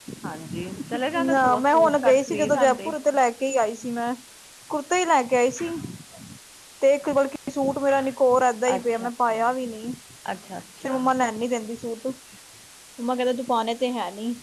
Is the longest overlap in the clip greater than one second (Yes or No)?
Yes